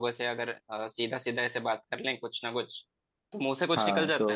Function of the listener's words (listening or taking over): taking over